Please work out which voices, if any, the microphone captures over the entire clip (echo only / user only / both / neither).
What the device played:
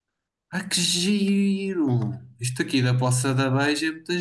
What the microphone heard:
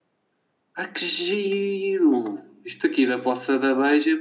echo only